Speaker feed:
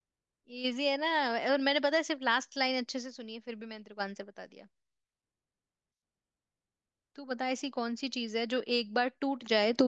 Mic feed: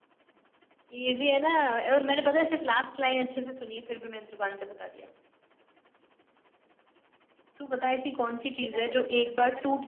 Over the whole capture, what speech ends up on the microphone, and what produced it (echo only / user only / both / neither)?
both